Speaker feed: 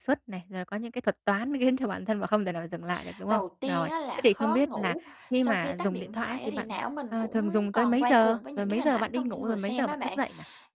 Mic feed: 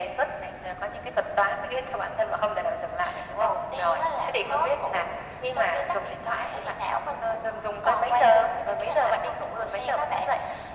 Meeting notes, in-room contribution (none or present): none